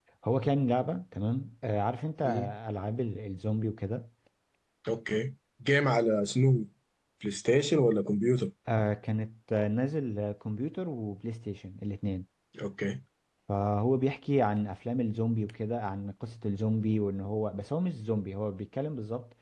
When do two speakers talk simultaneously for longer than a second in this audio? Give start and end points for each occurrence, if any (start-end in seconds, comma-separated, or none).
none